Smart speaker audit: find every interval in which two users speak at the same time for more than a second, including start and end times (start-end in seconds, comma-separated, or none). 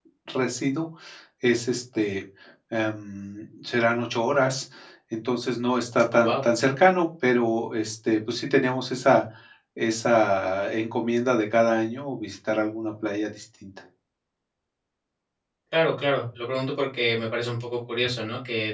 none